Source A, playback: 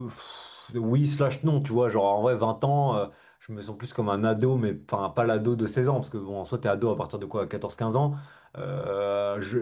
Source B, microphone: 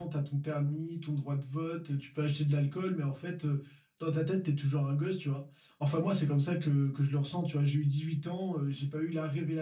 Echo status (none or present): none